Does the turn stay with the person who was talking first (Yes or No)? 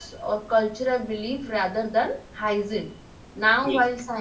Yes